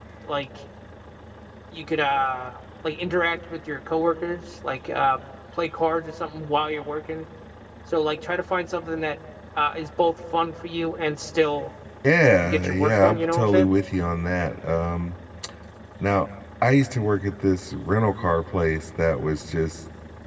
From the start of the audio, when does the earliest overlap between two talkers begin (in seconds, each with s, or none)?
12.4 s